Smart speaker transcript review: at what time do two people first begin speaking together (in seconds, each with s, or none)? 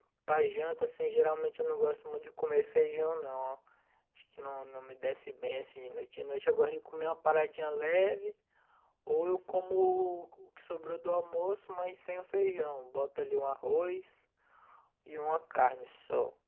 none